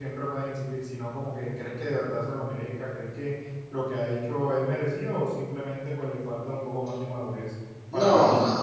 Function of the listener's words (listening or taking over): taking over